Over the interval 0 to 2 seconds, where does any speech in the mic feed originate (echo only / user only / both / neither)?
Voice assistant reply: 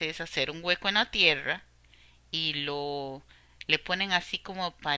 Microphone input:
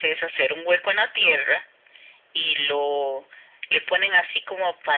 echo only